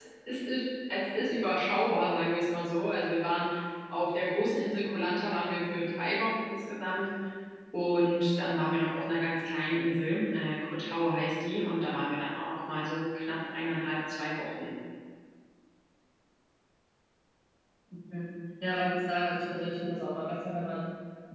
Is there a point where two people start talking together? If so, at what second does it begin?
none

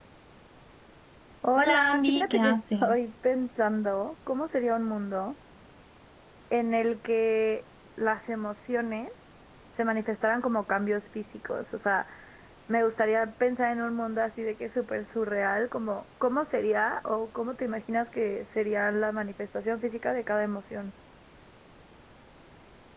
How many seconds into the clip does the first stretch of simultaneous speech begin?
1.6 s

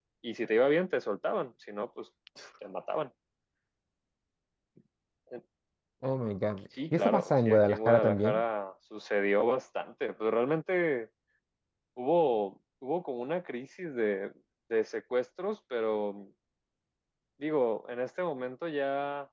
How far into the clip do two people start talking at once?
7.0 s

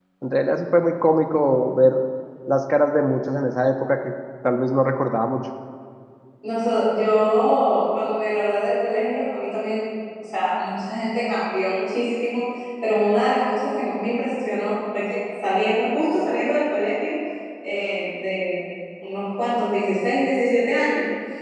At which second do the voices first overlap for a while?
none

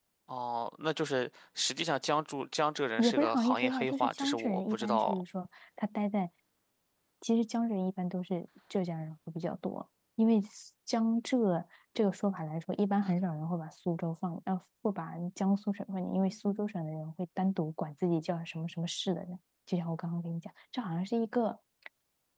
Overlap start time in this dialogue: 3.0 s

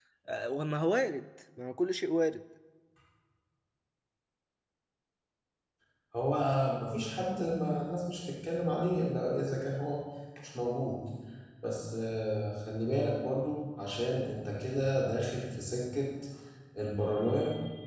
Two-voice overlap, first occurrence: none

